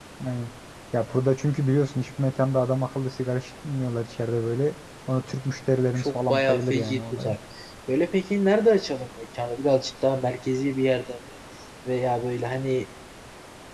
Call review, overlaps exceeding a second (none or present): present